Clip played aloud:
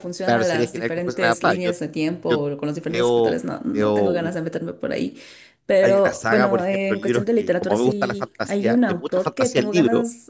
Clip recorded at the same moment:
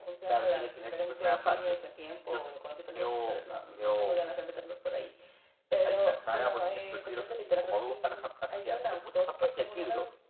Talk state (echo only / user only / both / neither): echo only